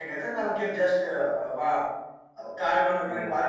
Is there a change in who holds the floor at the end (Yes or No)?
No